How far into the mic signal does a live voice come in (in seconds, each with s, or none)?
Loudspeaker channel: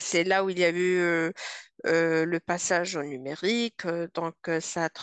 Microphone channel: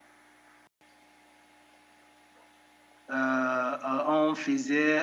3.1 s